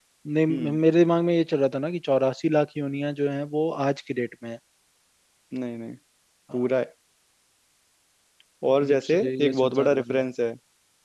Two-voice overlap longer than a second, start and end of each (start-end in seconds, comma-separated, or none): 8.9-10.2